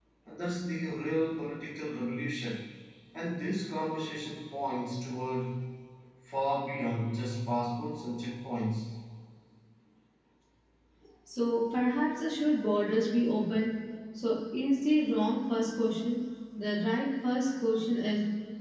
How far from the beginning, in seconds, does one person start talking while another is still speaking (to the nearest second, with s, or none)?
none